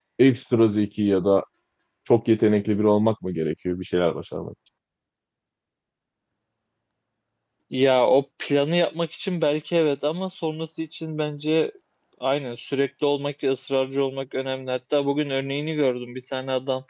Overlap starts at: none

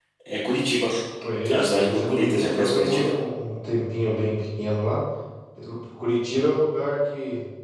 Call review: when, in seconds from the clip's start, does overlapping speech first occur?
1.5 s

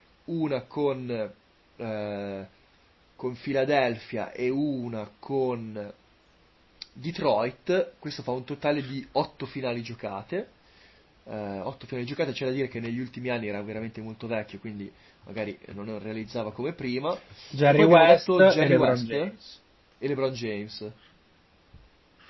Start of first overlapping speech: 17.7 s

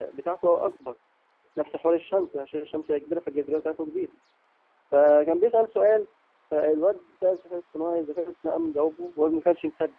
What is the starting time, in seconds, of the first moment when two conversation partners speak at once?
none

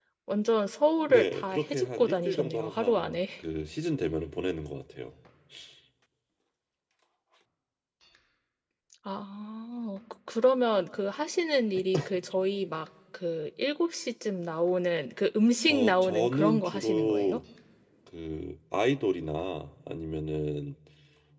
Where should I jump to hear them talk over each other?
1.1 s

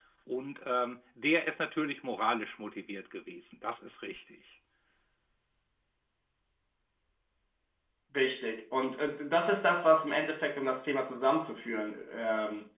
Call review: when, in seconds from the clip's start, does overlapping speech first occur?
none

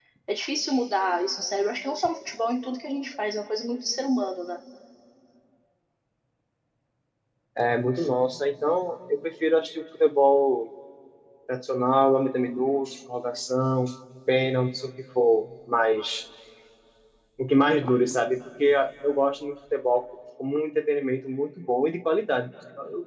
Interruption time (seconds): none

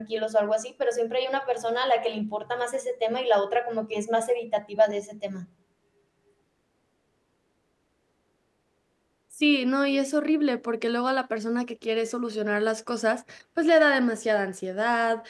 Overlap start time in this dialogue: none

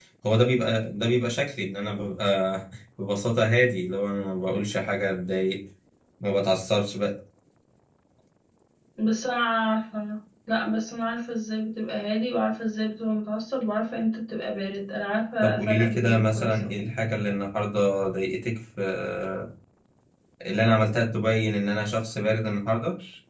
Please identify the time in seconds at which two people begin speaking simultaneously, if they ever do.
15.4 s

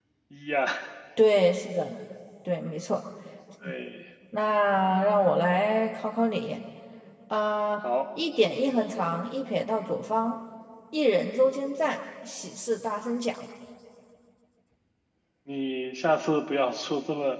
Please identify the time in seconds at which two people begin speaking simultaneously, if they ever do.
none

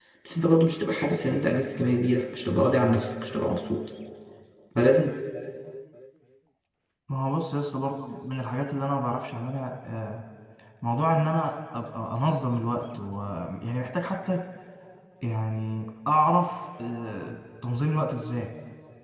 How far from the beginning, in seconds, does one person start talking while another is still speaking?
none

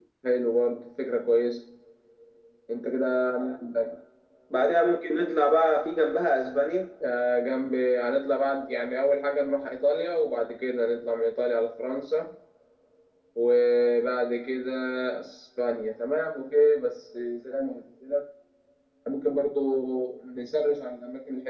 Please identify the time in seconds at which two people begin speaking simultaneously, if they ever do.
none

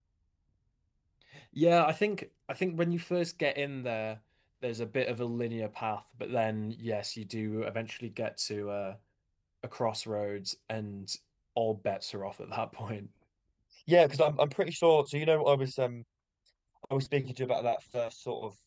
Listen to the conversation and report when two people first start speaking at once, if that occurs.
none

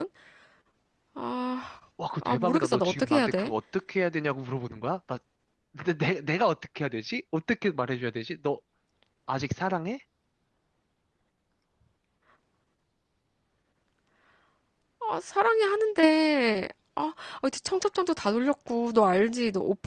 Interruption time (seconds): 2.0 s

